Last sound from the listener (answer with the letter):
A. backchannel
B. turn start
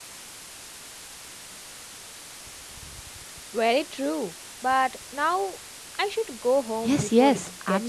B